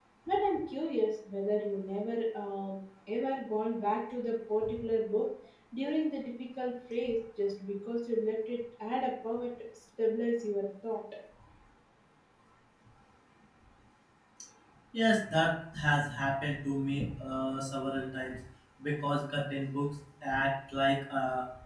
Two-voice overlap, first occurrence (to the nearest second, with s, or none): none